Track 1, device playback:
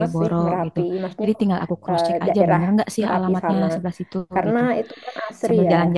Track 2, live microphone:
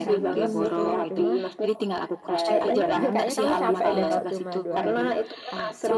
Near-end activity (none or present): present